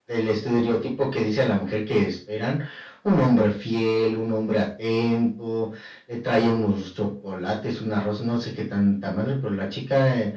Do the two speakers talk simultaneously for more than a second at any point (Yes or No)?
No